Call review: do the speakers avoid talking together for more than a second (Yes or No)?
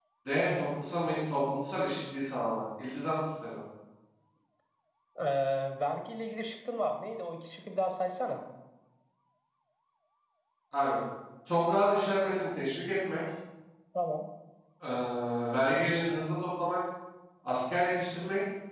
Yes